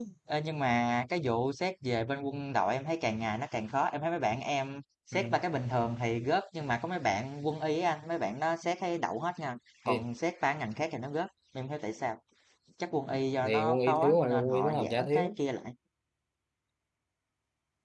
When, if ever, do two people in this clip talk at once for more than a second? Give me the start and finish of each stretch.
13.4-15.4

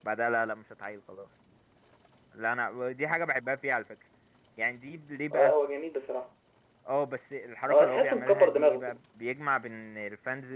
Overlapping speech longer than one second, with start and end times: 7.7-9.0

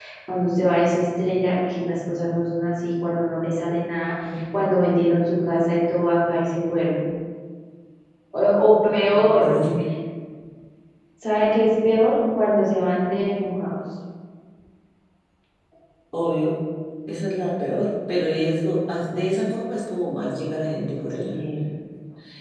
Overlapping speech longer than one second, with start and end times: none

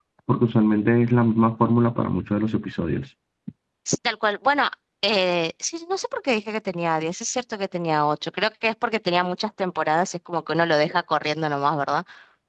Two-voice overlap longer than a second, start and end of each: none

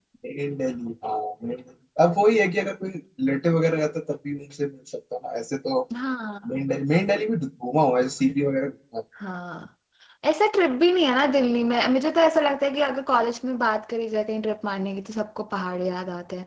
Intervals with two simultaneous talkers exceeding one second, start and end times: none

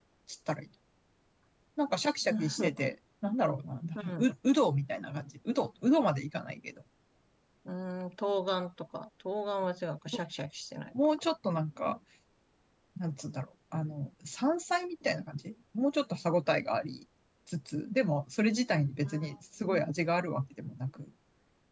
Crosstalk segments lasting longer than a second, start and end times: none

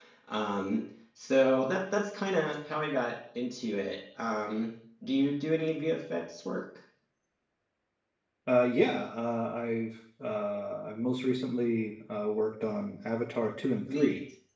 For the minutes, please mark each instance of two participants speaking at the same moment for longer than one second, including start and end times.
none

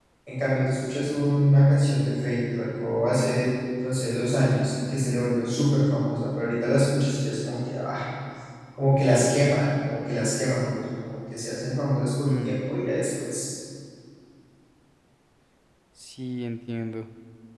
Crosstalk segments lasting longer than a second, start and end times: none

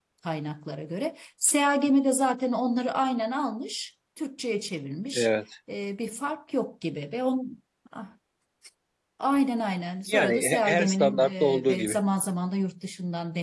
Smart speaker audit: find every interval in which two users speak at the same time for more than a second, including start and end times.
10.1-12.0

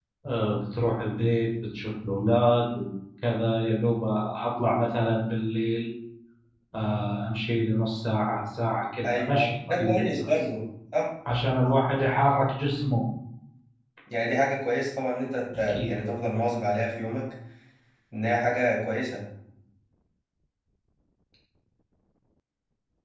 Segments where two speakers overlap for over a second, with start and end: 9.0-10.3

